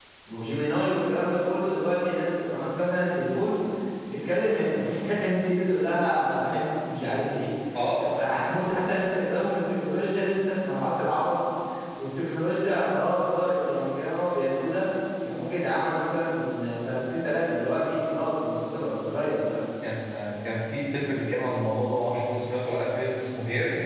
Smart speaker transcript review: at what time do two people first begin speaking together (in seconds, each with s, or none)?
none